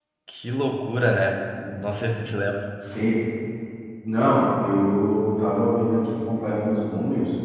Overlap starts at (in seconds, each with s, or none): none